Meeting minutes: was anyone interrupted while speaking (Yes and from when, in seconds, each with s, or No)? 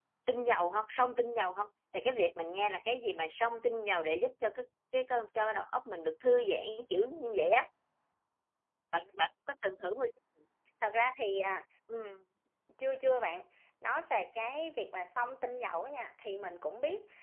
No